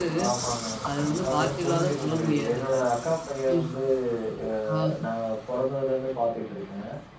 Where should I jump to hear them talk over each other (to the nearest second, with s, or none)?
1 s